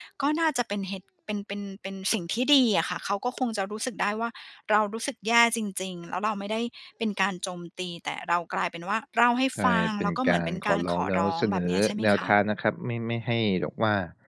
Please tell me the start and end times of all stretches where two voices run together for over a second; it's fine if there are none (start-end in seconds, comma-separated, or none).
9.6-12.4